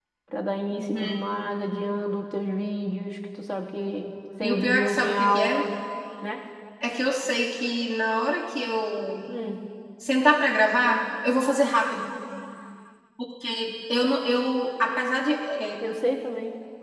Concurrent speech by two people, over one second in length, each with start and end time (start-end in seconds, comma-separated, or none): 4.4-5.6